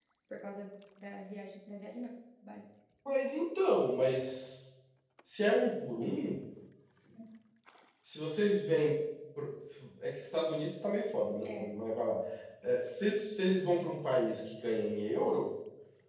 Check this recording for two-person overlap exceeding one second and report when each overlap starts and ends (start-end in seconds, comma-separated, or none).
none